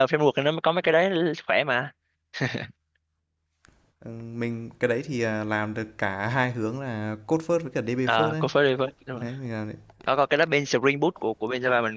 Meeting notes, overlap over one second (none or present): none